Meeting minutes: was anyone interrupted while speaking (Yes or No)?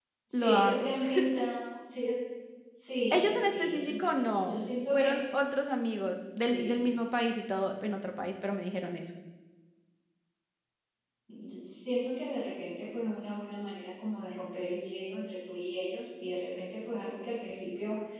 Yes